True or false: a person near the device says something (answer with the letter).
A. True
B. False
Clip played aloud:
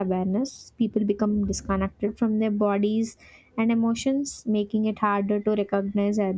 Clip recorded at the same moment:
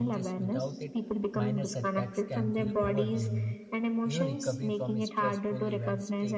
A